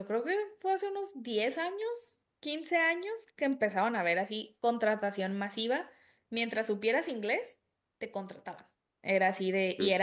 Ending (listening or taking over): listening